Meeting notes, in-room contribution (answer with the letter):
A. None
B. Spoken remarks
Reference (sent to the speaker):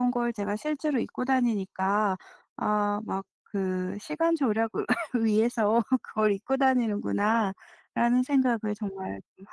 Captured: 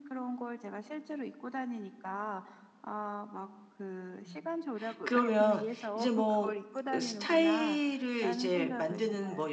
B